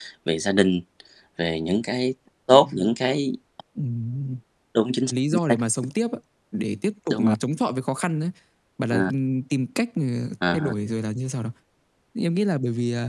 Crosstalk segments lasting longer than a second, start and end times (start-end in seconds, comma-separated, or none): none